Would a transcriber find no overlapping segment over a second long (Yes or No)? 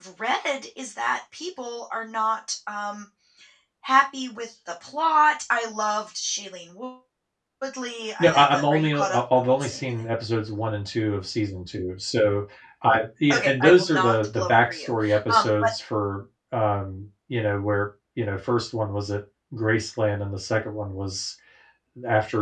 No